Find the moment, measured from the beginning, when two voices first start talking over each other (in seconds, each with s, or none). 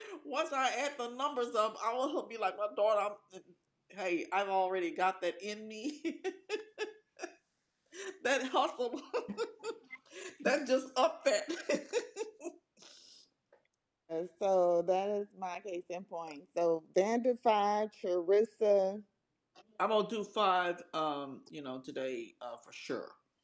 none